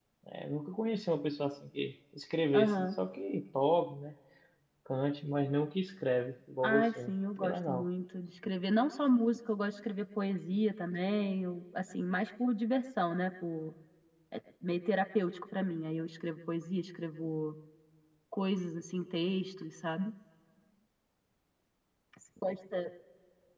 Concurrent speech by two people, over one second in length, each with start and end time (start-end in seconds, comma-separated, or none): 6.6-7.8